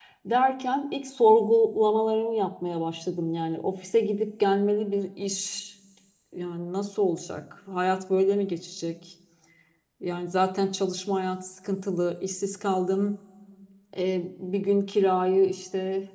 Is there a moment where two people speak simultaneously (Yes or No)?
No